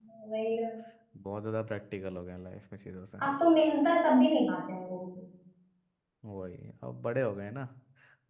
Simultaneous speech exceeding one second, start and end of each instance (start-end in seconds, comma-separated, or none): none